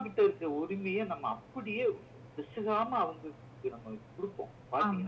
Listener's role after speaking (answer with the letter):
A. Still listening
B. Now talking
B